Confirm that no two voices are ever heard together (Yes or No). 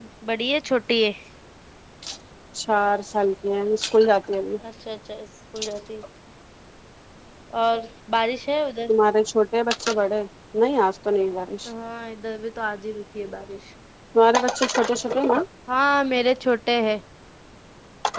Yes